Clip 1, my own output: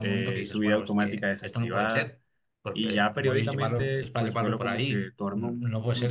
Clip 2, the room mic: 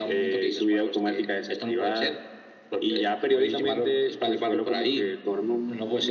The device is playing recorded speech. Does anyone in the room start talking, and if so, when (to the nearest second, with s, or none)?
none